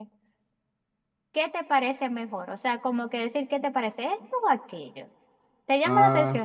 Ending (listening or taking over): taking over